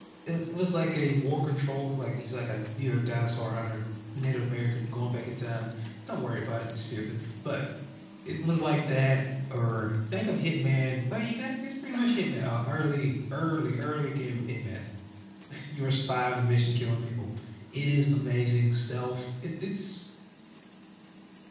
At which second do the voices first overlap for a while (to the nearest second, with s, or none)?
none